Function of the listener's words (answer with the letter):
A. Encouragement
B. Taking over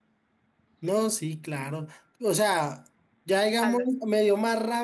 A